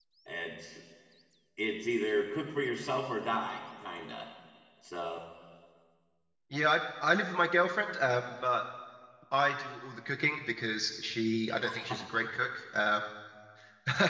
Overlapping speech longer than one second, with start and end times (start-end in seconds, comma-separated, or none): none